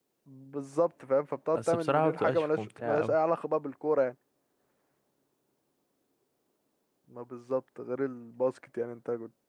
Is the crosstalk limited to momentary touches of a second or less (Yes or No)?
No